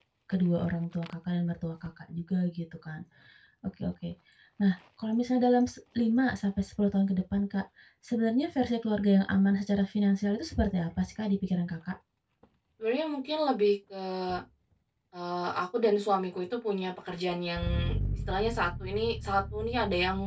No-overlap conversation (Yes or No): Yes